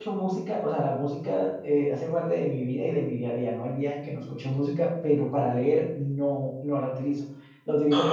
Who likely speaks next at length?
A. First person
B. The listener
A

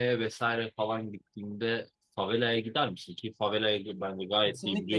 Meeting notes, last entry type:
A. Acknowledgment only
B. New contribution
B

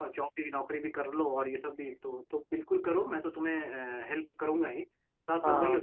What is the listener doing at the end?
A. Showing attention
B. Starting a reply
A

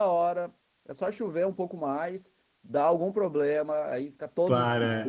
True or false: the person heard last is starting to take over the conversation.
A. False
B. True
A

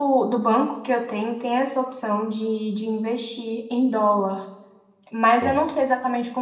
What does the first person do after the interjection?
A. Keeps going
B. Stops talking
A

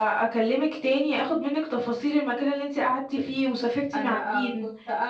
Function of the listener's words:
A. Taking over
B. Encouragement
A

